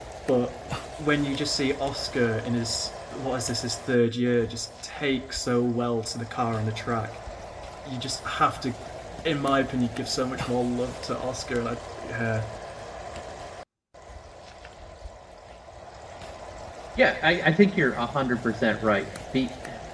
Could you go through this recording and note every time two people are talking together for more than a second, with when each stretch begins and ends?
none

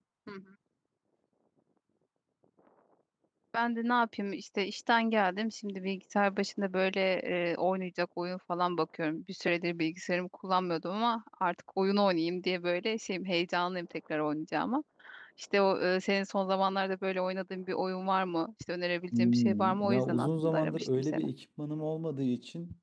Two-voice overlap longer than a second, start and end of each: 19.1-21.2

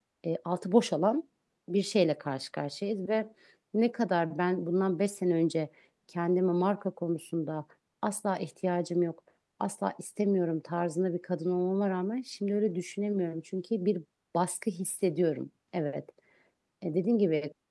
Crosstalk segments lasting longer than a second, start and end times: none

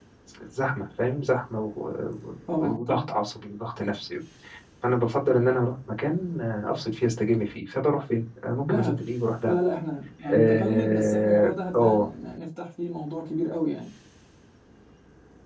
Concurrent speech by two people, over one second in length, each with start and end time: 10.3-12.1

